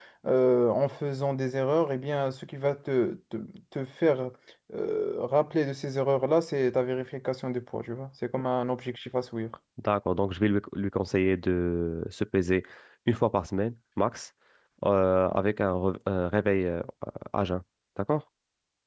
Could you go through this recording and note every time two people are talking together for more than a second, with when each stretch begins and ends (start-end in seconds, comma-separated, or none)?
none